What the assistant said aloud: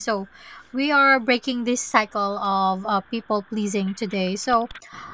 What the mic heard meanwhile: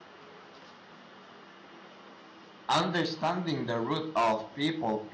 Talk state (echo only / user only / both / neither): user only